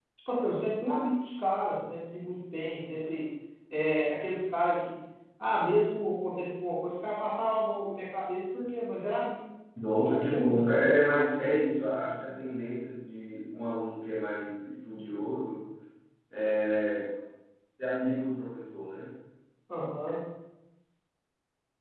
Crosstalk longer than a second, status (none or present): present